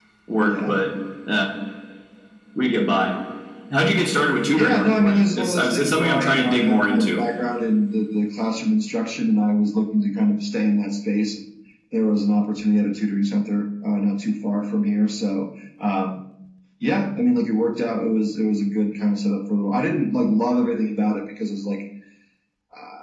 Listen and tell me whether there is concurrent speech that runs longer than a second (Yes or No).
Yes